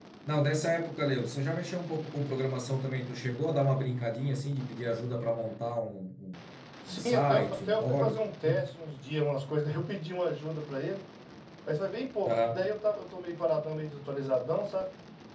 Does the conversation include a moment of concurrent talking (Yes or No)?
Yes